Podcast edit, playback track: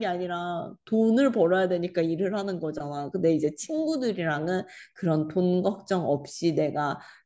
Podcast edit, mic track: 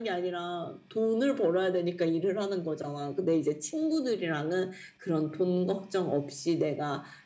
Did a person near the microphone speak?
No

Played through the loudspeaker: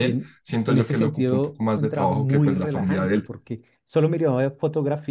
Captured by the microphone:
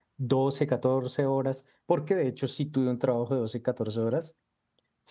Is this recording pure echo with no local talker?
No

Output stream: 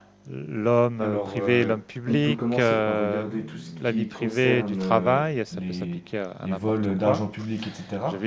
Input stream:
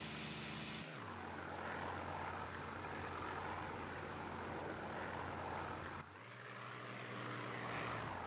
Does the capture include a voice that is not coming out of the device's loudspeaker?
No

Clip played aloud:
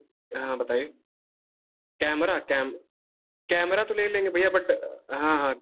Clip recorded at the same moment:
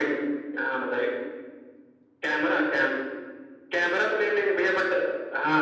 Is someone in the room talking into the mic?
No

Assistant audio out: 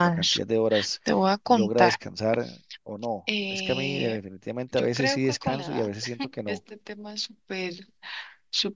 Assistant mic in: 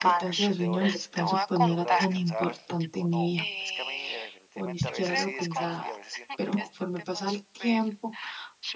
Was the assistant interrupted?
Yes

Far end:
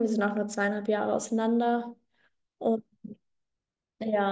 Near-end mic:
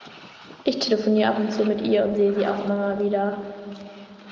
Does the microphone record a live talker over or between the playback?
Yes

